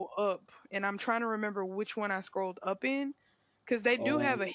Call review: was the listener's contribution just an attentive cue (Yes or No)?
Yes